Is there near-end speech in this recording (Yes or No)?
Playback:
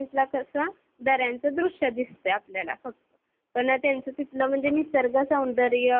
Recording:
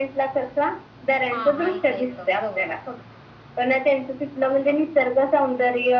Yes